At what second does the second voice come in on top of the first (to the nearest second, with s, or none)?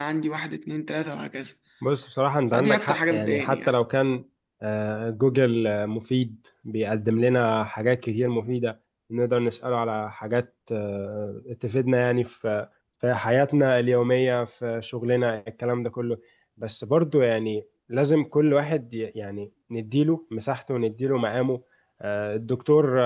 3 s